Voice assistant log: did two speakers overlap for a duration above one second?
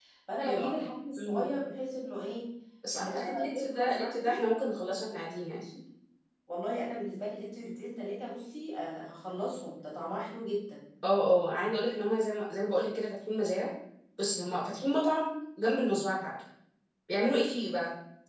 Yes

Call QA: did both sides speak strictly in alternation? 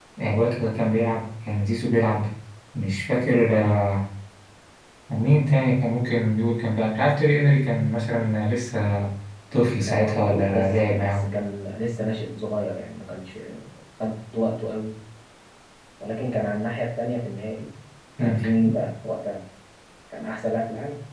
No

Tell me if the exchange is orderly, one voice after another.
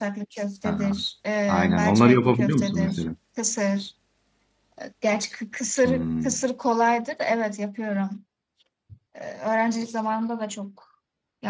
No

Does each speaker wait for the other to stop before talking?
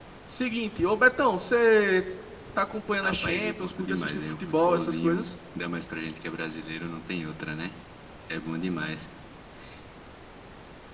No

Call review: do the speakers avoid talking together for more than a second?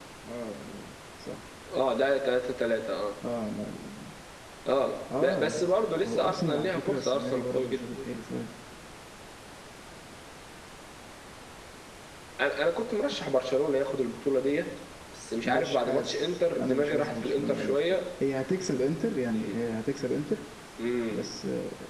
No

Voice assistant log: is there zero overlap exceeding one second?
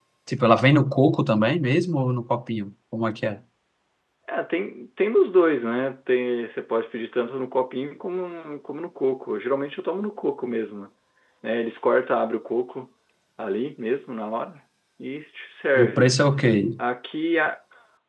Yes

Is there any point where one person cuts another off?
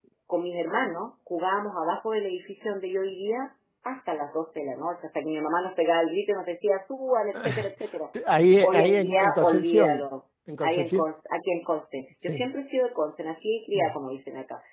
Yes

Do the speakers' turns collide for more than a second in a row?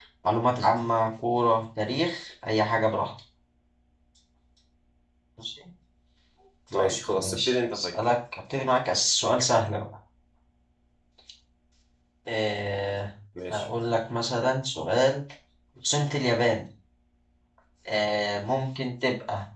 Yes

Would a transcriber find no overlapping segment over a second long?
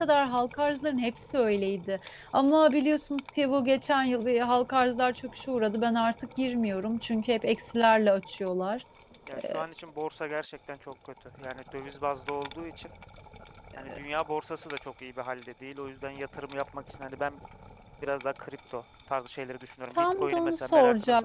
No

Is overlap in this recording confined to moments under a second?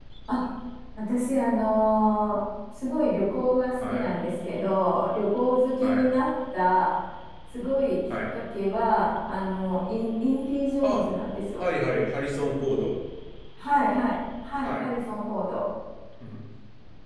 Yes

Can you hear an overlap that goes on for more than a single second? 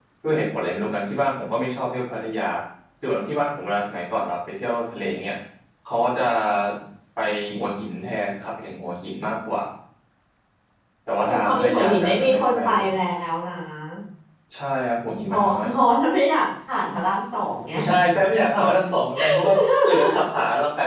Yes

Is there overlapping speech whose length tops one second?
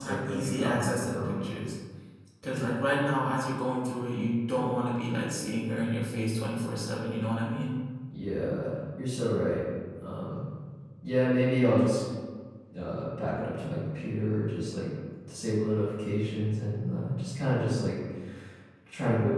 Yes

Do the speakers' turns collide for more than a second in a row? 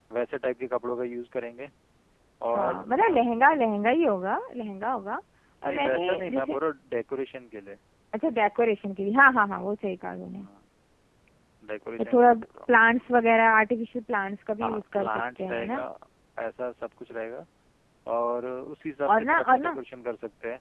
Yes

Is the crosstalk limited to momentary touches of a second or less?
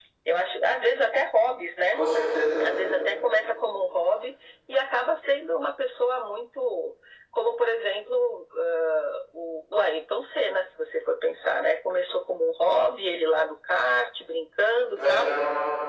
Yes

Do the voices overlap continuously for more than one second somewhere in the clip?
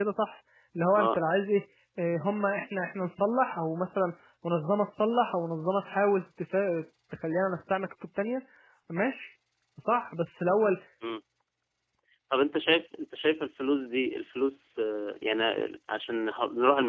No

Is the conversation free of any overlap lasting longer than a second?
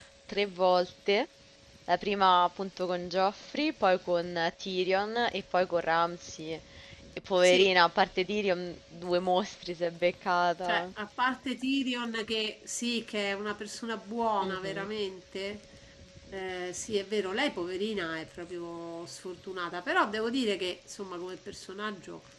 Yes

